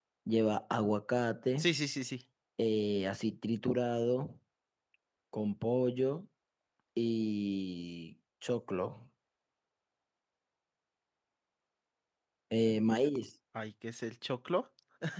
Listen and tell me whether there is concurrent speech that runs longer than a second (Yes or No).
No